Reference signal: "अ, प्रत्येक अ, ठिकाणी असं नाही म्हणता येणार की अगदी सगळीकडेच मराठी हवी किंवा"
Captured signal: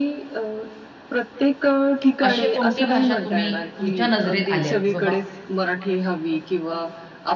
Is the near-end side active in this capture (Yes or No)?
Yes